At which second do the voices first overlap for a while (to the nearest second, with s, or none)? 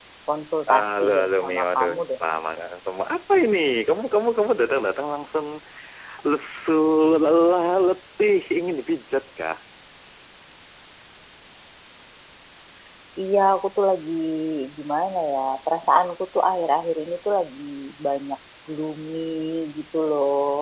1 s